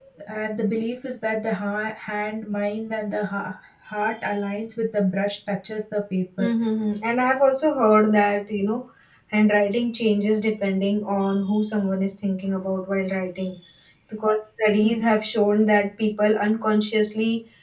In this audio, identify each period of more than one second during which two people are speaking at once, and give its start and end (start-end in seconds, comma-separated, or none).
none